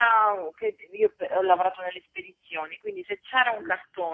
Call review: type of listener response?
listening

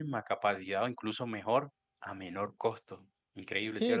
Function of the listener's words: taking over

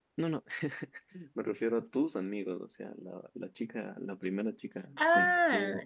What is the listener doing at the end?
taking over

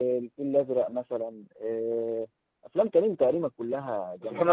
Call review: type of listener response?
taking over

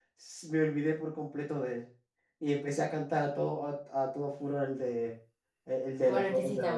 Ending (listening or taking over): taking over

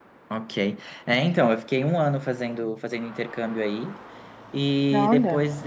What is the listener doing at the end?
listening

